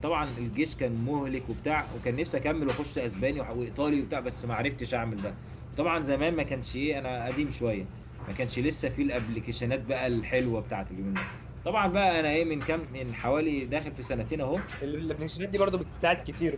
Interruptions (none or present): none